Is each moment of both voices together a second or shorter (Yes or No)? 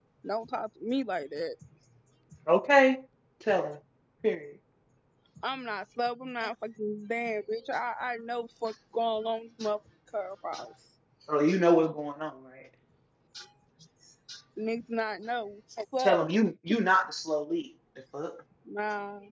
Yes